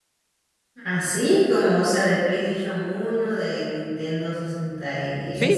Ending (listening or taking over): taking over